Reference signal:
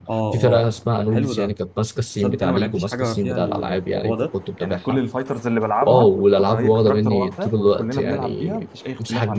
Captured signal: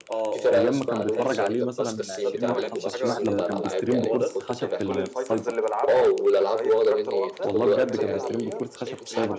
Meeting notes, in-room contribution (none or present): present